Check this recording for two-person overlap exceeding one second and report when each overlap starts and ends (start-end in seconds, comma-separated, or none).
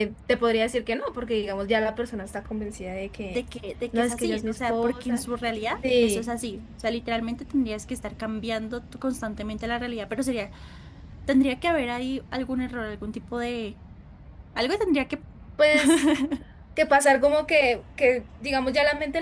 3.9-5.2